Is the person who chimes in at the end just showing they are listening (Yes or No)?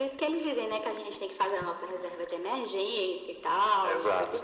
No